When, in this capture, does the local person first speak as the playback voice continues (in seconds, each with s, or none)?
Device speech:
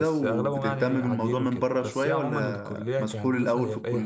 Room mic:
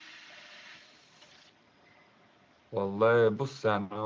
2.7 s